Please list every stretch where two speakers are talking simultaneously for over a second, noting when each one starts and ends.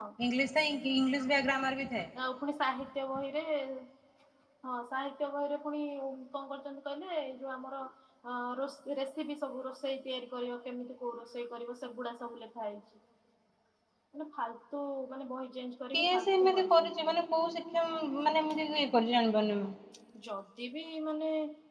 15.9-17.2

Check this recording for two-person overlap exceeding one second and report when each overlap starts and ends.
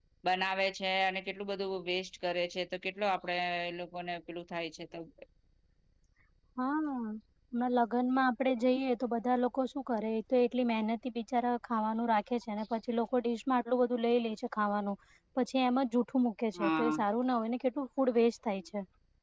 none

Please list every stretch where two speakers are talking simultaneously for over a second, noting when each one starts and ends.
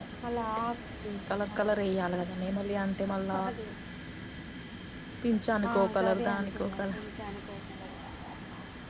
5.7-7.0

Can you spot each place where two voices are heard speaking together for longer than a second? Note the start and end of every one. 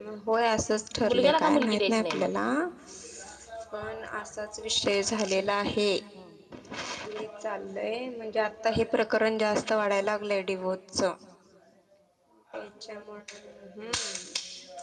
1.1-2.3

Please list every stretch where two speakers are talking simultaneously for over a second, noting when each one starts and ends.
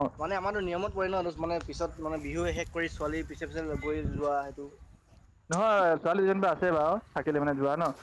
none

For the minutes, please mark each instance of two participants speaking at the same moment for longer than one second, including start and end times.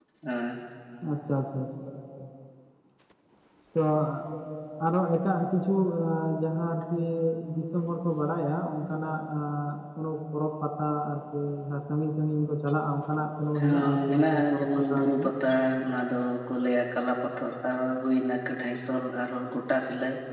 13.6-15.2

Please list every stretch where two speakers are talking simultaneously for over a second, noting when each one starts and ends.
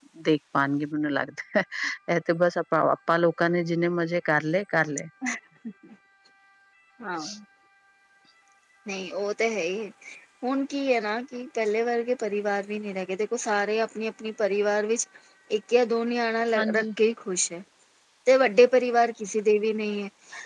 none

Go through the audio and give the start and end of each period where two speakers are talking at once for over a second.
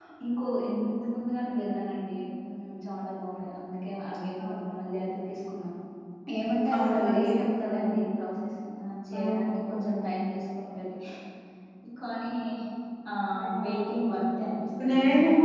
6.8-8.0

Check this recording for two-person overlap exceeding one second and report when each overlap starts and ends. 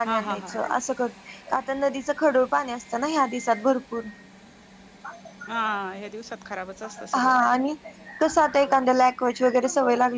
none

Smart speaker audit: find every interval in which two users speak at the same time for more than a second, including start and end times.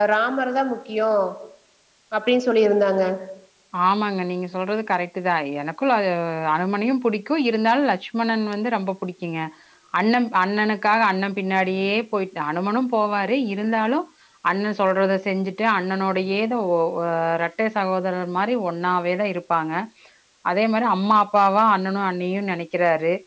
none

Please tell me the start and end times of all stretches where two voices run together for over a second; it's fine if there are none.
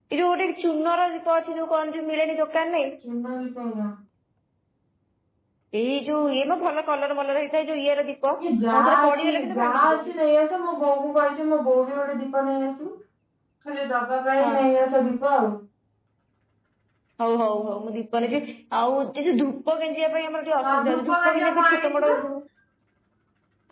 8.8-10.0, 20.6-22.1

